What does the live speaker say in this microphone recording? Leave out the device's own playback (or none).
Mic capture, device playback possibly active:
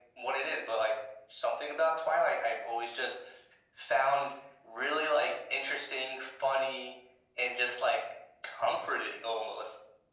none